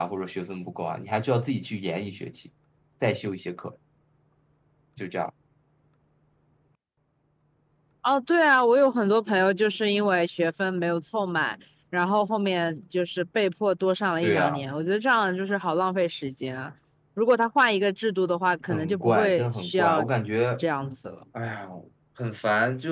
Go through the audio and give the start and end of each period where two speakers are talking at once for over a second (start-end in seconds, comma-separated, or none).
18.7-20.0